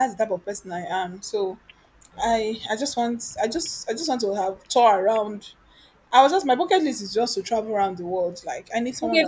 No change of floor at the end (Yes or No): No